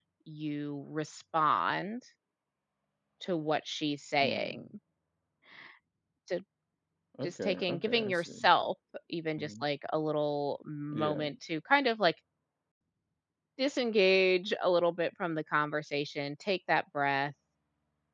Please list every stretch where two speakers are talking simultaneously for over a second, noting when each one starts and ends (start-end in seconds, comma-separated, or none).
7.2-8.5